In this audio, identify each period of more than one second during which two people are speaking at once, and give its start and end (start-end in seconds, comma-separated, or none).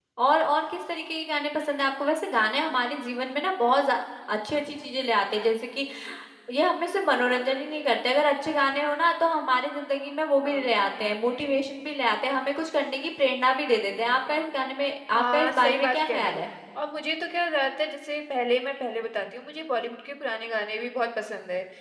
15.2-16.4